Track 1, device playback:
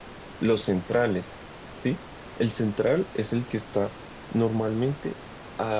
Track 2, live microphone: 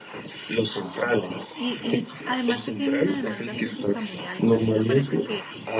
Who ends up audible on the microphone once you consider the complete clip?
both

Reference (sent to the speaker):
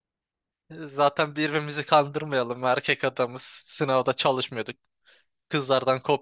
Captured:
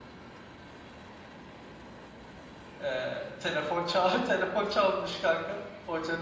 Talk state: user only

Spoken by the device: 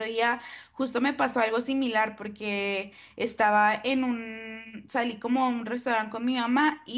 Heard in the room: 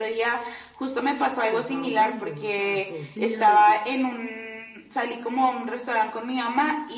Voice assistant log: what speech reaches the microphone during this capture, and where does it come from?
both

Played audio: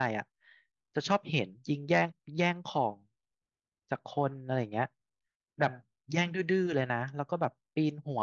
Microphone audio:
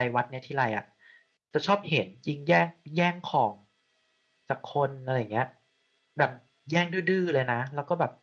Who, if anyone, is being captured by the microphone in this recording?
echo only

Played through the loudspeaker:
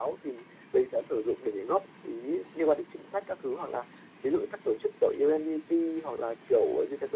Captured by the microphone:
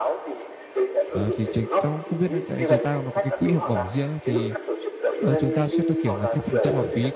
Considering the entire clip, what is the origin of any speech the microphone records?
both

